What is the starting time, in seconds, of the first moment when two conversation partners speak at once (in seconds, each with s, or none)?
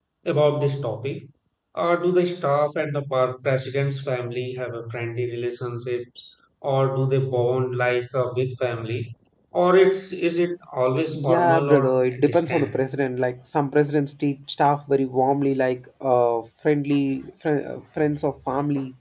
11.1 s